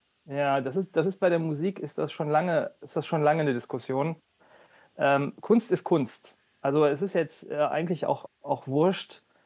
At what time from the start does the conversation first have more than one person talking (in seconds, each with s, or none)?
none